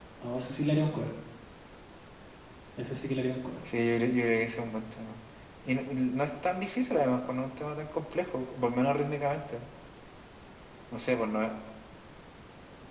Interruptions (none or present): none